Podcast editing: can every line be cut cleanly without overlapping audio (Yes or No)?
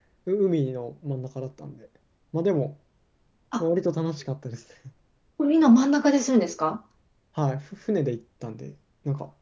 Yes